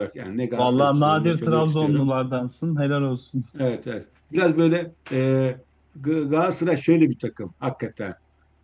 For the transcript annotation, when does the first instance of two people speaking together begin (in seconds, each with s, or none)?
0.6 s